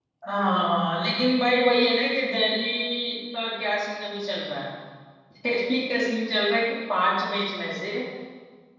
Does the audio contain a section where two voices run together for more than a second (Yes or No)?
No